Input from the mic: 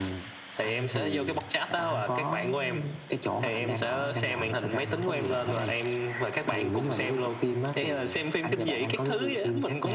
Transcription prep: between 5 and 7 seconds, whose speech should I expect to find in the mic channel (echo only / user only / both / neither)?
echo only